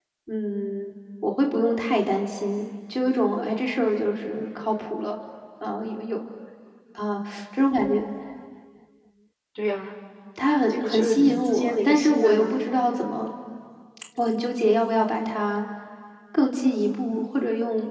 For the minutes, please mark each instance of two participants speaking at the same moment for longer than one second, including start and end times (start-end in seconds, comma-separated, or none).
10.7-12.6